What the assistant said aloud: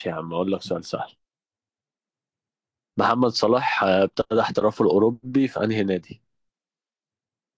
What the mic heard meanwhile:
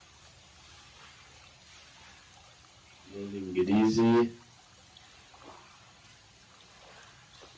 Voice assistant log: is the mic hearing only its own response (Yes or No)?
No